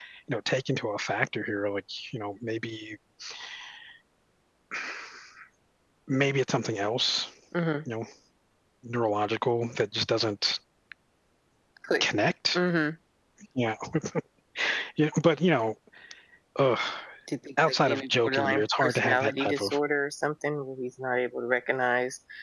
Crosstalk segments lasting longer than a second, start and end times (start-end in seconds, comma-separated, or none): 17.7-19.8